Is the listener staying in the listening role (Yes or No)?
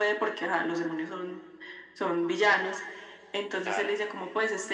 Yes